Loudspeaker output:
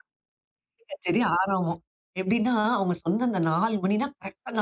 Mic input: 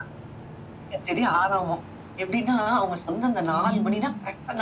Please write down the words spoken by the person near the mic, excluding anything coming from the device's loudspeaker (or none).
ம்.